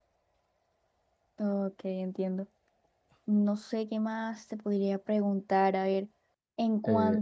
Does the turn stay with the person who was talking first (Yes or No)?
Yes